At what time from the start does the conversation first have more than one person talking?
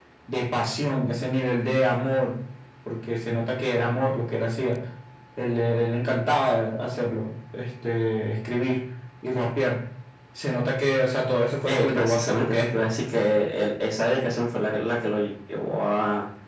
12 s

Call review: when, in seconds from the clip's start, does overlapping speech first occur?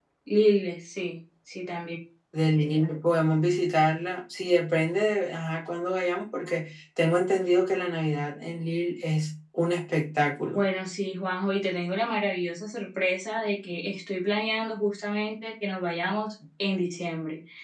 none

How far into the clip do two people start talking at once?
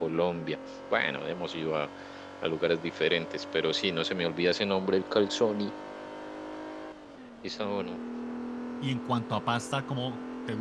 none

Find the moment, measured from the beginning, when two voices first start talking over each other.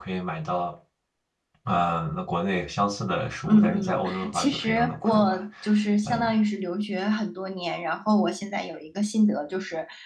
3 s

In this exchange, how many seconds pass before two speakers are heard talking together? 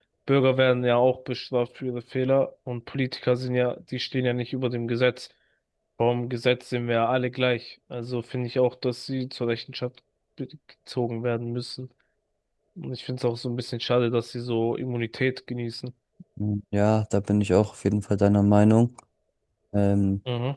none

